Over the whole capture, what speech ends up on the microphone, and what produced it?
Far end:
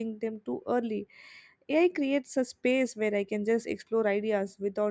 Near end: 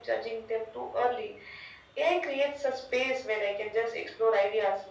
echo only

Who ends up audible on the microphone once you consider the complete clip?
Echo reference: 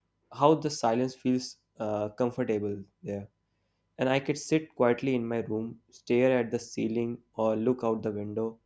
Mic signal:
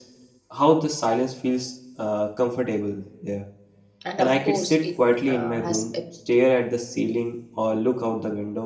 both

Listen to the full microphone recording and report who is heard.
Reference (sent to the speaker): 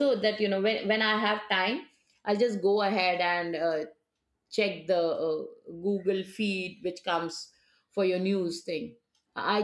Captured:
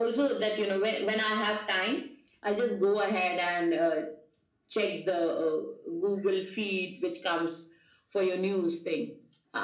echo only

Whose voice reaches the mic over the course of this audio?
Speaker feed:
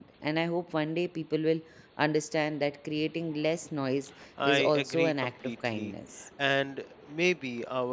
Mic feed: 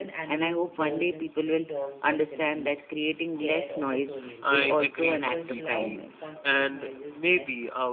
both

